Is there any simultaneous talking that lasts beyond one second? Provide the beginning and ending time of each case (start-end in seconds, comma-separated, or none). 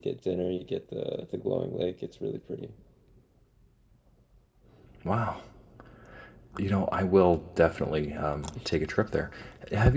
none